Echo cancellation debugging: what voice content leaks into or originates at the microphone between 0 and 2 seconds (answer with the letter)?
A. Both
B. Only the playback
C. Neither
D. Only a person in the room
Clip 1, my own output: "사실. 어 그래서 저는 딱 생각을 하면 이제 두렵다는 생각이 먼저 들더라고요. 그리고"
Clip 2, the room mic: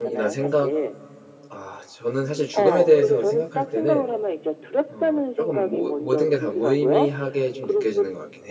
A